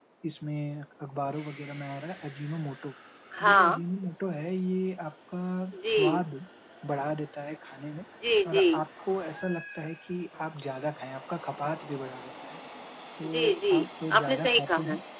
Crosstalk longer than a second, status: present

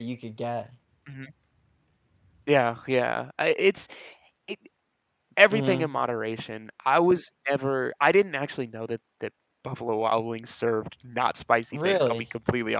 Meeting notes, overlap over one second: none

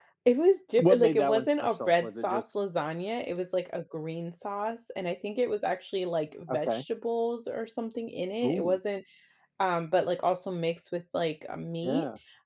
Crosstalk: present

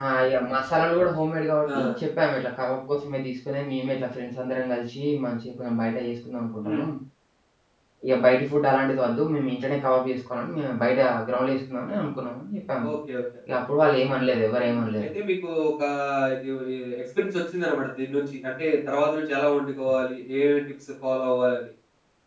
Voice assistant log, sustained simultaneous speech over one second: none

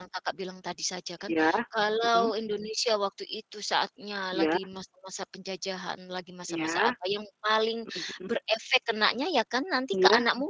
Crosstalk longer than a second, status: none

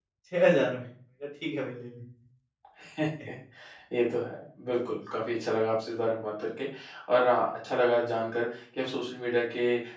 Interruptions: none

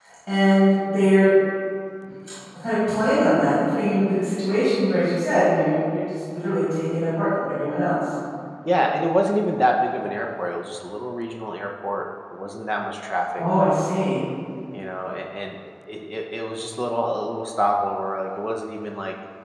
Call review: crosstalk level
none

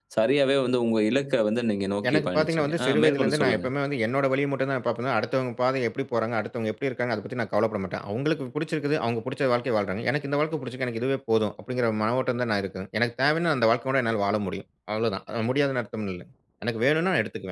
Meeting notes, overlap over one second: present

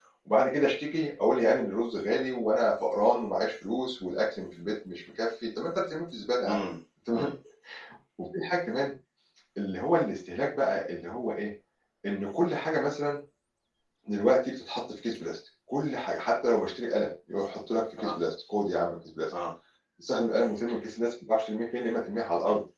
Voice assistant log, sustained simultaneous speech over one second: none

